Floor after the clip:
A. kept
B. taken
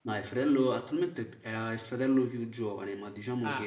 B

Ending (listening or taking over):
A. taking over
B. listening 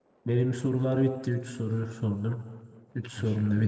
A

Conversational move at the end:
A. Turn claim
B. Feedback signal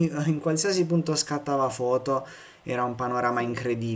B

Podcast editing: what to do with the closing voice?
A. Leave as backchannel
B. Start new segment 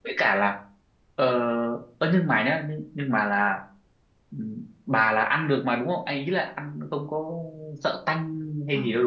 B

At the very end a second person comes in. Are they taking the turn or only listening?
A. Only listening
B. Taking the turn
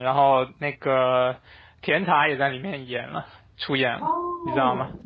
B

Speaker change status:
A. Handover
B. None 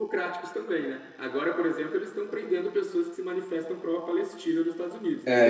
A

